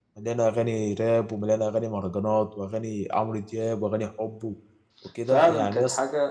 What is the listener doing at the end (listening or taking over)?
taking over